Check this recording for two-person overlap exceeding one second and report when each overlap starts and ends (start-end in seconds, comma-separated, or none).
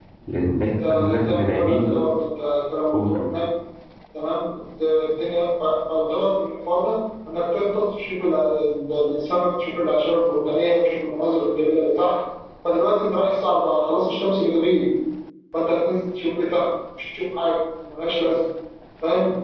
0.7-1.9